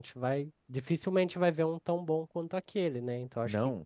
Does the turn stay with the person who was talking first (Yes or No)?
Yes